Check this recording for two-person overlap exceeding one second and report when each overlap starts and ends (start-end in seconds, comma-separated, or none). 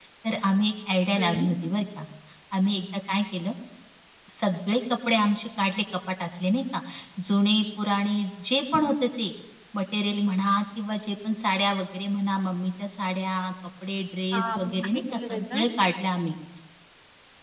14.3-15.6